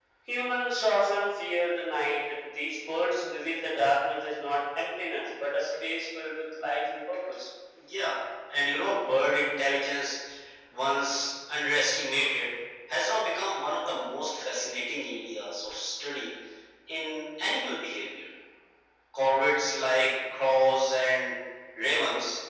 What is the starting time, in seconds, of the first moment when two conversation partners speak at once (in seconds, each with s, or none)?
none